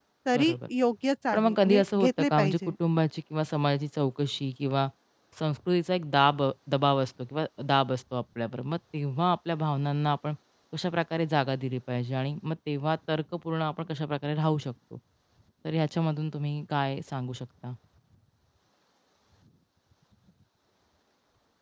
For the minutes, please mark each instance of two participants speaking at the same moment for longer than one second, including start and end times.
1.3-2.7

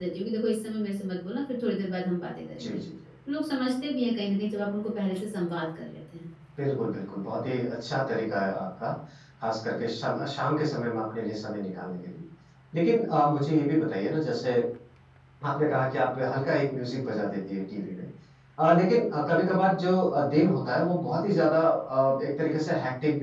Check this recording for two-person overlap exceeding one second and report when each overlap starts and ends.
none

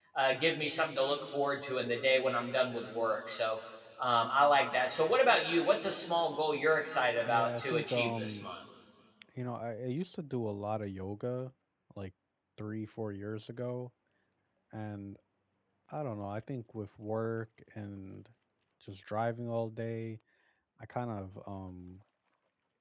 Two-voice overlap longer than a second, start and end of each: 7.2-8.5

